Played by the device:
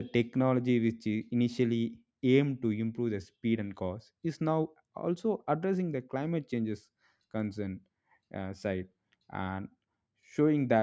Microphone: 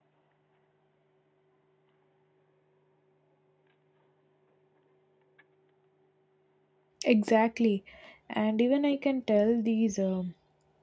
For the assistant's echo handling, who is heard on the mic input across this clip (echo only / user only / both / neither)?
user only